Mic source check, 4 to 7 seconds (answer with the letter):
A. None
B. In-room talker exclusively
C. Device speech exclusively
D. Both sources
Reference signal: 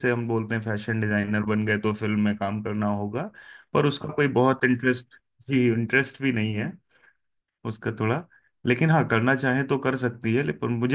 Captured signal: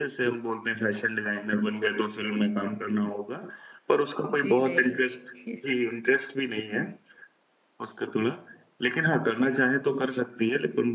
D